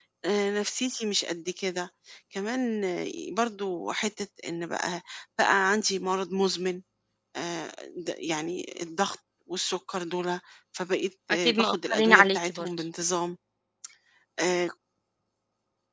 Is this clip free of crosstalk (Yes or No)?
No